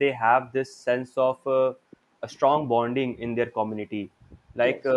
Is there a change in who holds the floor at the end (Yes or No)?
No